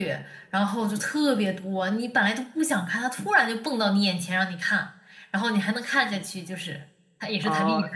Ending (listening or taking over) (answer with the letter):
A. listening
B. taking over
B